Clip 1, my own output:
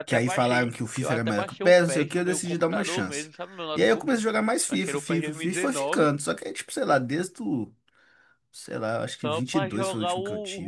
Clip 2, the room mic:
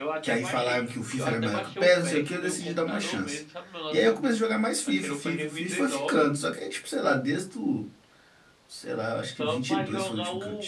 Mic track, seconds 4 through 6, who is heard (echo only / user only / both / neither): echo only